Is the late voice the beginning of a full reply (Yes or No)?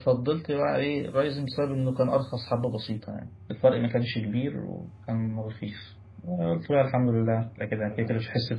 No